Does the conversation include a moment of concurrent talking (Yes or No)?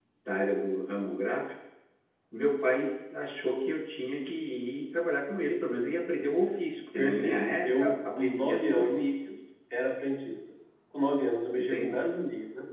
Yes